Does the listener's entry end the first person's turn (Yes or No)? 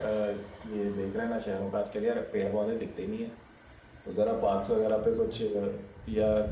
No